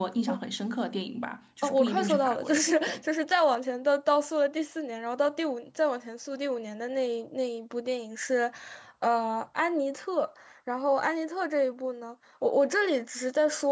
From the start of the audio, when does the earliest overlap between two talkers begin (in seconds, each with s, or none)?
1.6 s